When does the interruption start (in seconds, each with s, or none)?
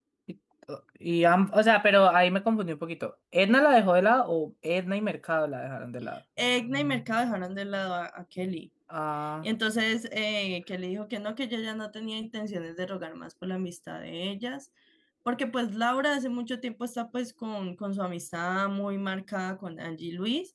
none